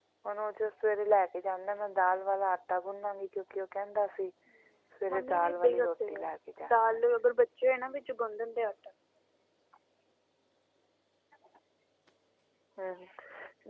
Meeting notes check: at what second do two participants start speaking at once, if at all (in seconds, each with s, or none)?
5.1 s